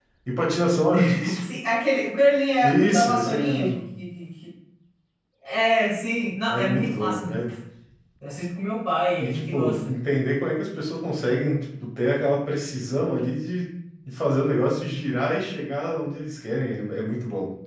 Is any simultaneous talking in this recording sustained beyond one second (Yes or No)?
Yes